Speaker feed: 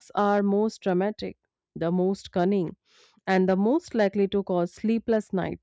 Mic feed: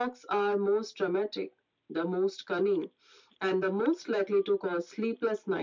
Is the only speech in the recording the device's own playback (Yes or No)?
Yes